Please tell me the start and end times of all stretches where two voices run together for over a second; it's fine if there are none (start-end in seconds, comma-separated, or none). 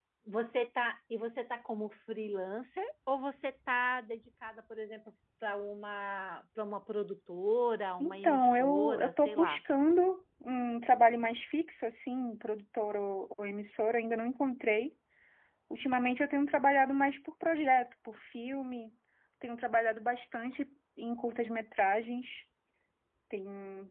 8.0-9.6